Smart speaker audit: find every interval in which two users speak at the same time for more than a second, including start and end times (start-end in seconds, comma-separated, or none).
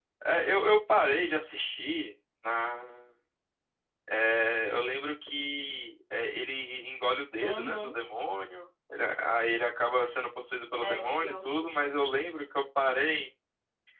10.8-12.1